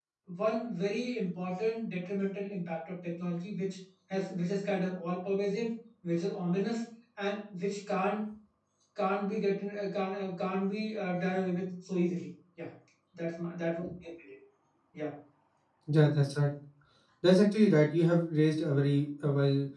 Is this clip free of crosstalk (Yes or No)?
Yes